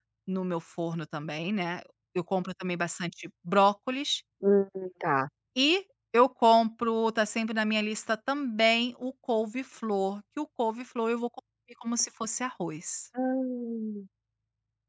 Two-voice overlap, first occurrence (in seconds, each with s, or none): none